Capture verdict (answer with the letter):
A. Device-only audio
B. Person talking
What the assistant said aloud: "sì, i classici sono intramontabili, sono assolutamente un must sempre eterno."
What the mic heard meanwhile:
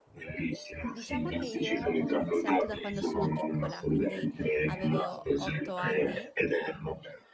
B